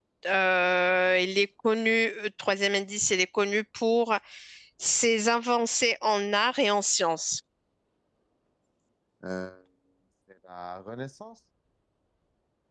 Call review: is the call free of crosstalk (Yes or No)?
Yes